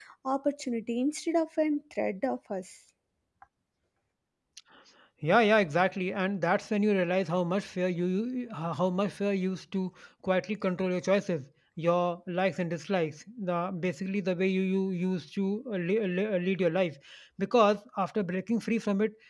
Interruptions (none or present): none